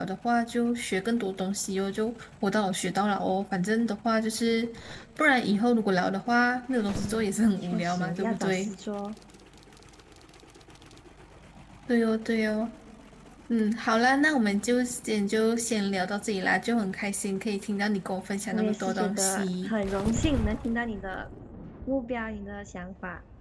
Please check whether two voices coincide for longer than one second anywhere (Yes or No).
Yes